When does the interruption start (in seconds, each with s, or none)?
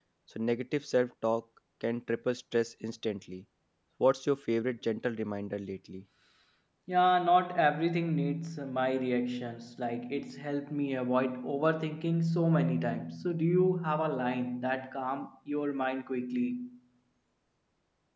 none